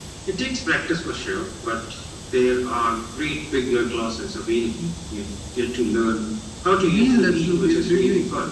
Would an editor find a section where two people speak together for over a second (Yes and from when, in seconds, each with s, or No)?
Yes, from 6.8 s